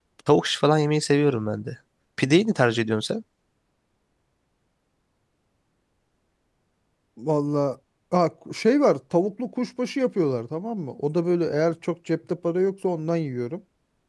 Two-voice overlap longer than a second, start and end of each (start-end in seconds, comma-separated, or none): none